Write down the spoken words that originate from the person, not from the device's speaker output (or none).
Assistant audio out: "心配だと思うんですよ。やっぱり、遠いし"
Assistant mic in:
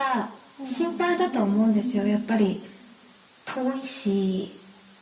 そうなんですね。うんう